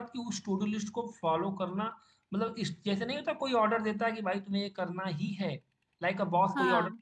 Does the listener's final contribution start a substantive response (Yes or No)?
No